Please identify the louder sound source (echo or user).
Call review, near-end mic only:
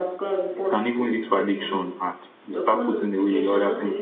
user